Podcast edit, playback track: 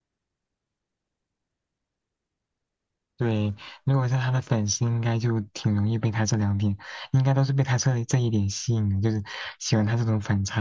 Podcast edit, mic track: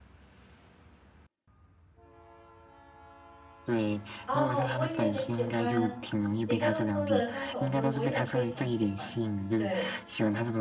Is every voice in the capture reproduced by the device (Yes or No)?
No